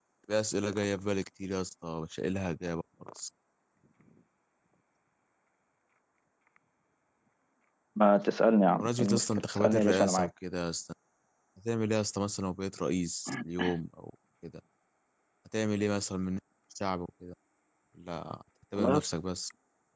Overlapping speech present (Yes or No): Yes